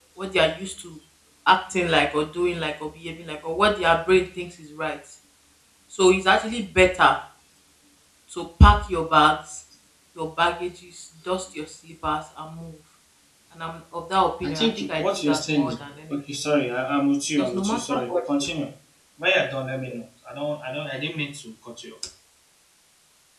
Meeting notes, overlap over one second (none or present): present